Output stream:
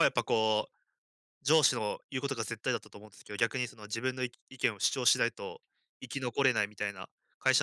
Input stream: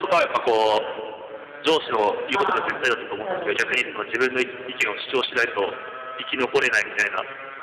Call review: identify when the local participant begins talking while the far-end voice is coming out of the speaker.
1.8 s

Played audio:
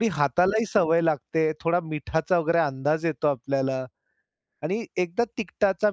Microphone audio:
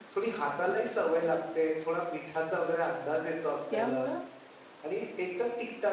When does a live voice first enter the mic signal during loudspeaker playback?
3.7 s

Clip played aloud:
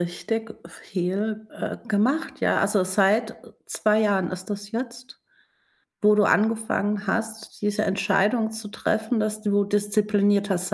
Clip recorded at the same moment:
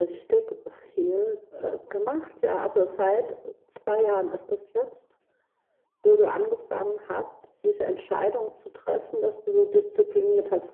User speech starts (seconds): none

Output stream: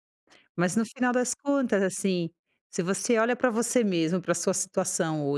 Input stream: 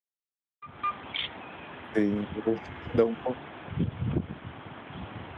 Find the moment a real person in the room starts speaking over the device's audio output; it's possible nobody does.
2.0 s

